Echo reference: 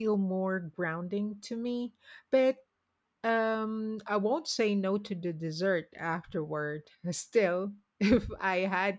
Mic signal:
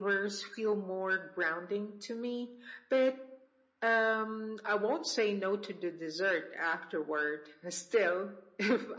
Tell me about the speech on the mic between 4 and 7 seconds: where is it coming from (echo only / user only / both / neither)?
echo only